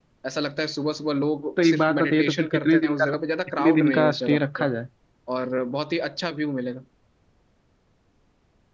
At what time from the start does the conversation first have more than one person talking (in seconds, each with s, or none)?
1.6 s